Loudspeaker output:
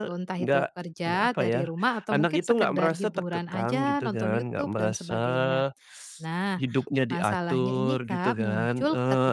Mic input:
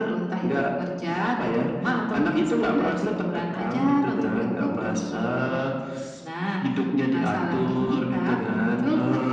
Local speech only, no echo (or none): none